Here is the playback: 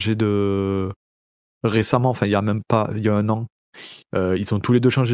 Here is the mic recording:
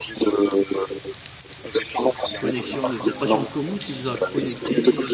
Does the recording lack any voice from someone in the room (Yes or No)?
No